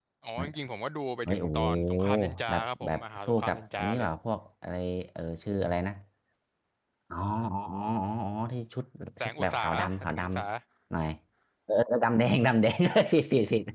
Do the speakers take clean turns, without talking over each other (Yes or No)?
No